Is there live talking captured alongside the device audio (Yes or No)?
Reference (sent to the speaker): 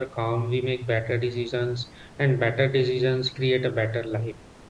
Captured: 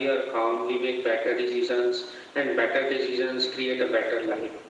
No